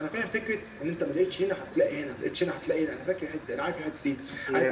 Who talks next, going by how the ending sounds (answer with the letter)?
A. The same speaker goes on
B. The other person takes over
A